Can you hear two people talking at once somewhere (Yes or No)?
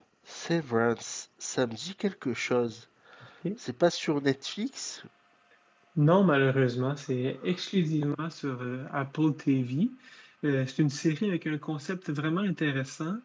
No